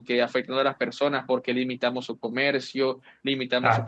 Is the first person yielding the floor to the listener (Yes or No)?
Yes